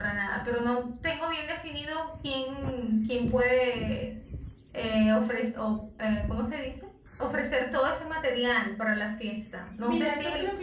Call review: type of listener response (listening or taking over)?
taking over